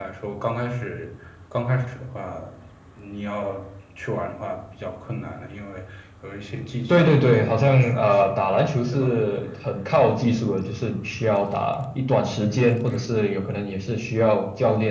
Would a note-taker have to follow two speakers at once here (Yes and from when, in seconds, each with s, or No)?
Yes, from 6.9 s